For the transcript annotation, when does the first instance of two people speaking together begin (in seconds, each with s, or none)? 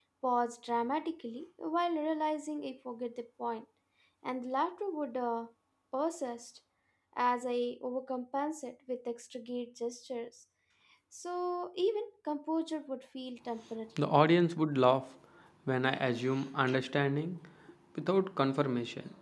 none